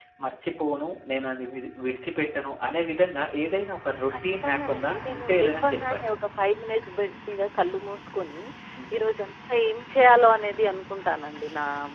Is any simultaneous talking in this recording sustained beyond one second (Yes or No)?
Yes